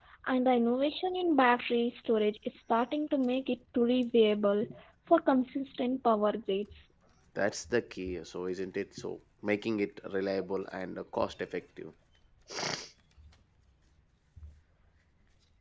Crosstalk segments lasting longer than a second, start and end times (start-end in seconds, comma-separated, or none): none